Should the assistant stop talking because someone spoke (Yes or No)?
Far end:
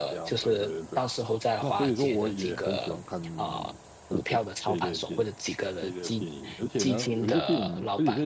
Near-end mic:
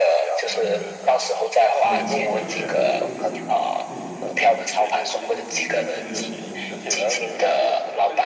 Yes